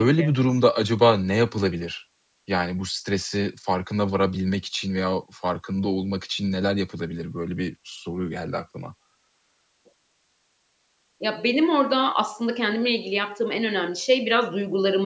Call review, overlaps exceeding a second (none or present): none